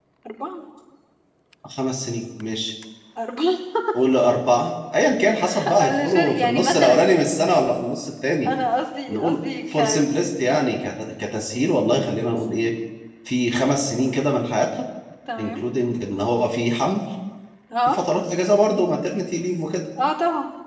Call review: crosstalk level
present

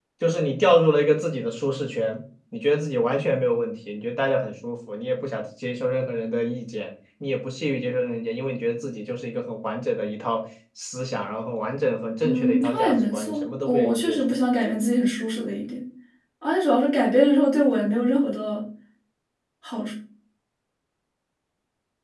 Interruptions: present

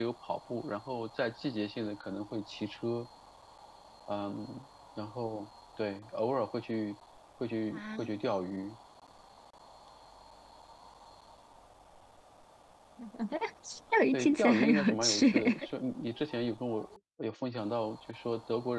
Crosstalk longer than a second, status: present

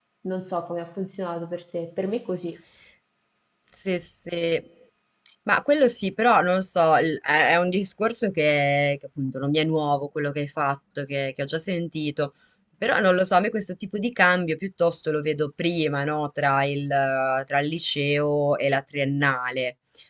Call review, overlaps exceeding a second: none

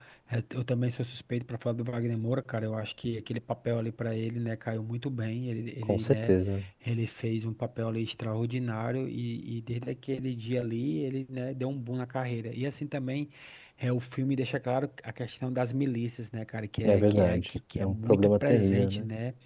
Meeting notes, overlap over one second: present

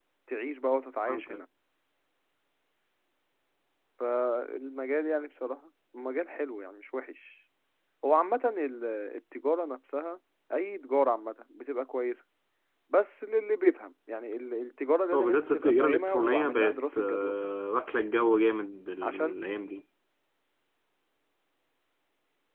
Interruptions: present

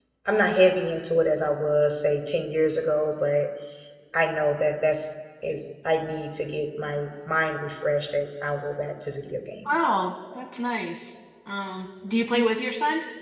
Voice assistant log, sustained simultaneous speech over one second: none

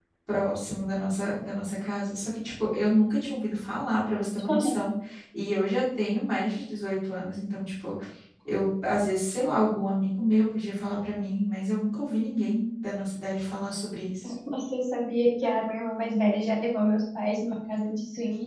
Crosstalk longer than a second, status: none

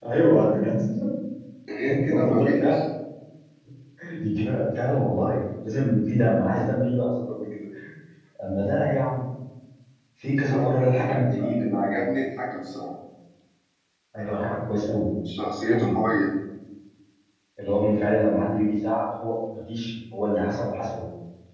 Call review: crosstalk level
present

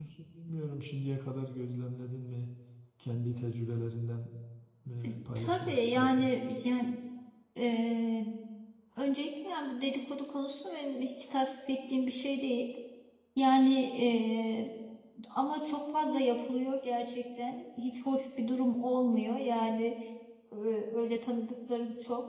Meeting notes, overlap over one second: present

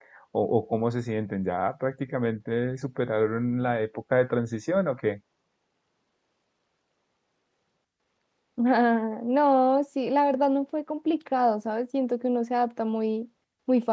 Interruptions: none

